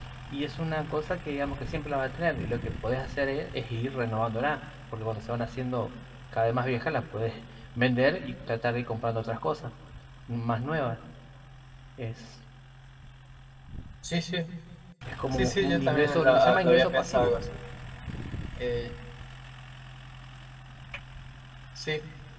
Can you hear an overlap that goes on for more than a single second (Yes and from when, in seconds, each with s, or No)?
Yes, from 15.3 s